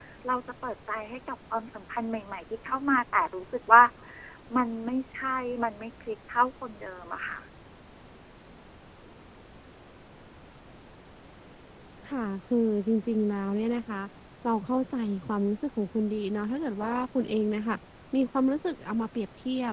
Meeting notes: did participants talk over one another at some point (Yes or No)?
No